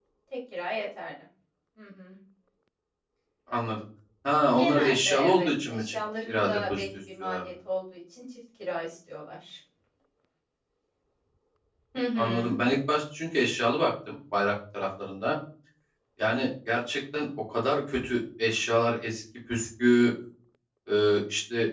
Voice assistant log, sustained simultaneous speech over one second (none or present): present